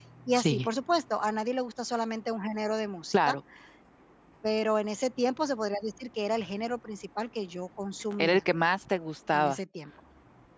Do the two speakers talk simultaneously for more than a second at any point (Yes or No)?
No